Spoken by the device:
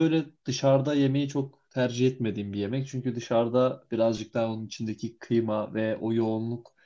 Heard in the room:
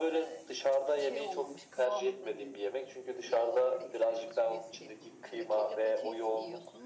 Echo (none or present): present